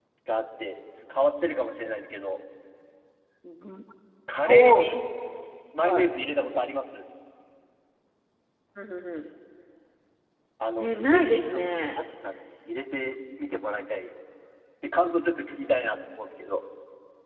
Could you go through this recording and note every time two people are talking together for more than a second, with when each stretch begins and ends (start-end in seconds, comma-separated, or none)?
10.8-12.0